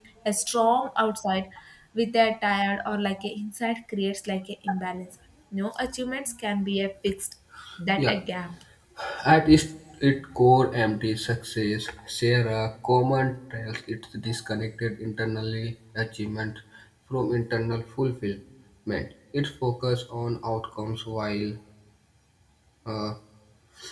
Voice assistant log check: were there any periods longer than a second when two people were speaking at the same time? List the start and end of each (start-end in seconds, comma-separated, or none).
none